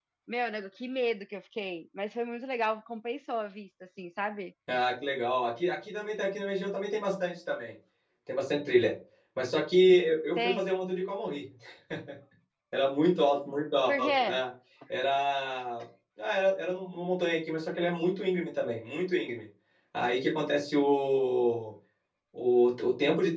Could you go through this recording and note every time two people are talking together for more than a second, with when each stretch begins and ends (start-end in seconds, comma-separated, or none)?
none